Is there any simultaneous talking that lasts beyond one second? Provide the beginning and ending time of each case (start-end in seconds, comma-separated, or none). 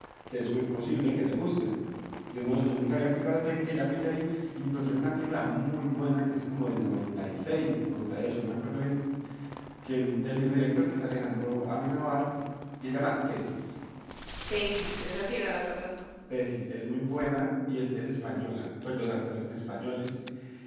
none